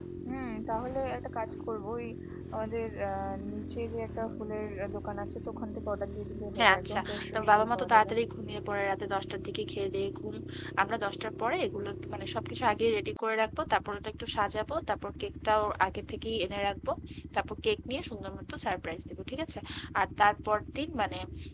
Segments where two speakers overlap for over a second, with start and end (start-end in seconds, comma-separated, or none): 6.6-8.1